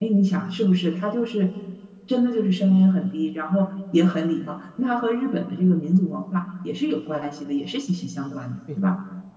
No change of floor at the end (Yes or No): No